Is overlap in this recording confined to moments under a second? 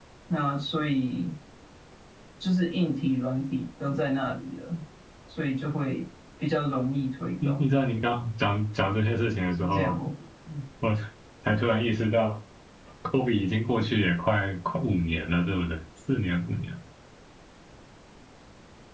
Yes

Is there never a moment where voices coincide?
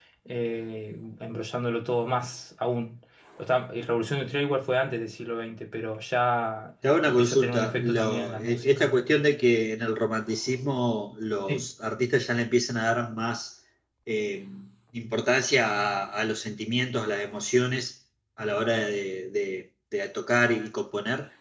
No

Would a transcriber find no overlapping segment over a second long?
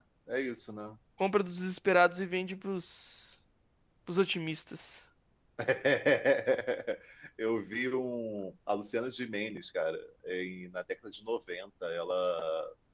Yes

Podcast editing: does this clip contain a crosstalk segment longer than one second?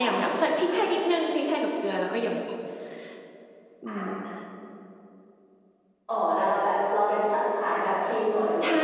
No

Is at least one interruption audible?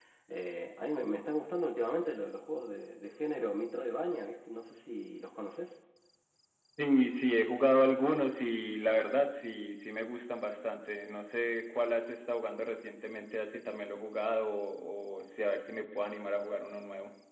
No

